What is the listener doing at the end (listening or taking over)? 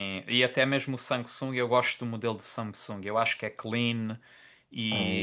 listening